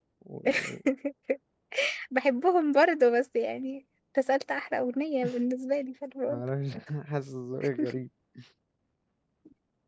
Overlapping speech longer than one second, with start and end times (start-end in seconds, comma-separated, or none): none